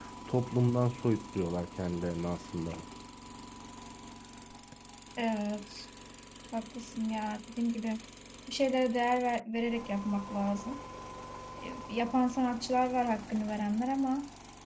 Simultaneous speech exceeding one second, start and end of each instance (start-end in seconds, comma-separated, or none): none